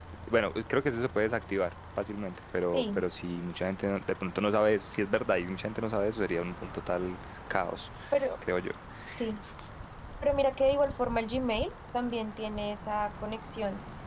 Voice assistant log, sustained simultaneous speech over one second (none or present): none